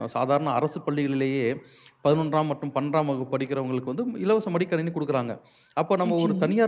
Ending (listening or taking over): listening